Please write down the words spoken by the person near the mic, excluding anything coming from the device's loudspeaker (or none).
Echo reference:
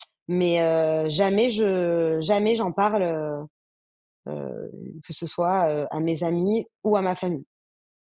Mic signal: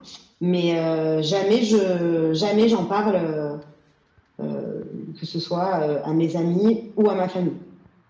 none